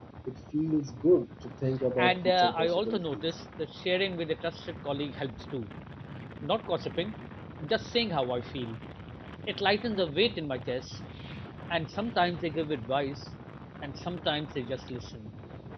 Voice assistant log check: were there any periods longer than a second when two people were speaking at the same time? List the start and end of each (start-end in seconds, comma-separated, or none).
2.0-3.2